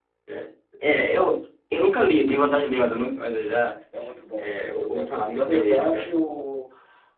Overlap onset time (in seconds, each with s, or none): 4.4 s